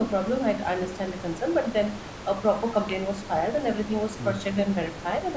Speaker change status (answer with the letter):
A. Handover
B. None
B